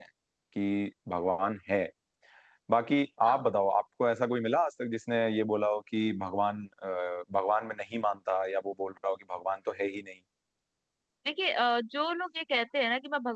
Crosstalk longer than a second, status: none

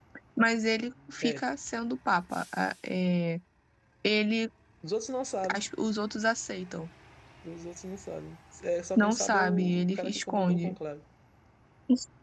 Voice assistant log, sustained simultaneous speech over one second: present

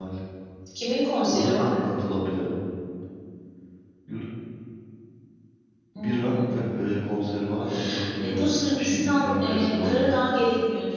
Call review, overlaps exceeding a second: present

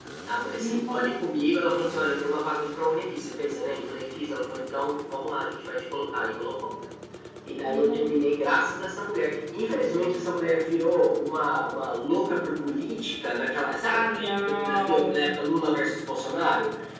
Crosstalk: present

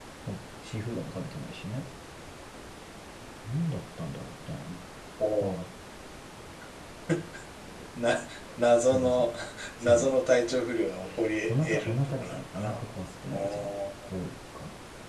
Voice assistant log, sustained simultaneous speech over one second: present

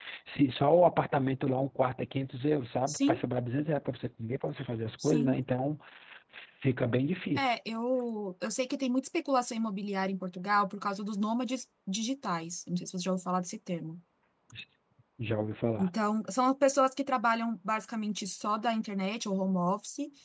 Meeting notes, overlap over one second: none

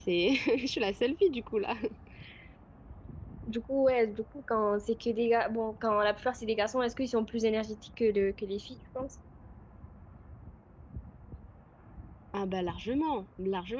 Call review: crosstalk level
none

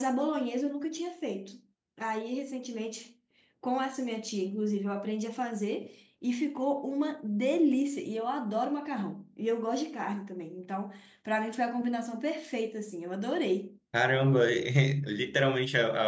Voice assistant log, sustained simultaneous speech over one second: none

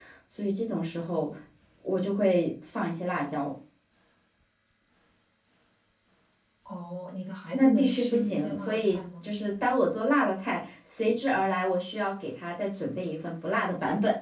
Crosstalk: present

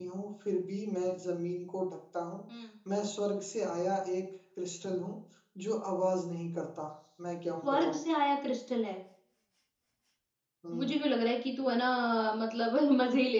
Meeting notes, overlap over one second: none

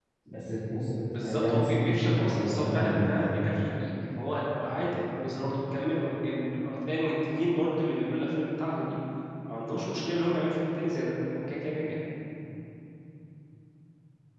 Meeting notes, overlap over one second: present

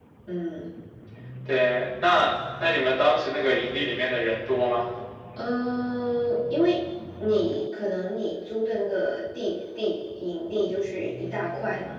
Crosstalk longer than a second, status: none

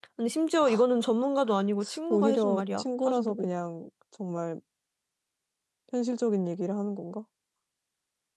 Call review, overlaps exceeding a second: present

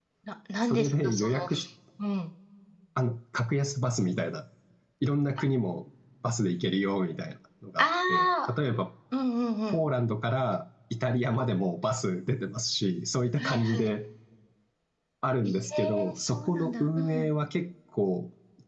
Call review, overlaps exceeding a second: present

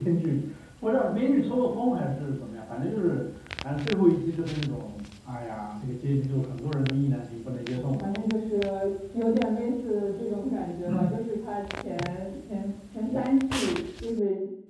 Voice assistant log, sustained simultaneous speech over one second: none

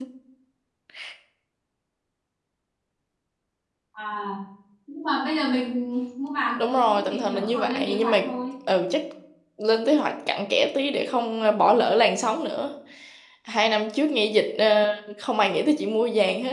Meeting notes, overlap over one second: present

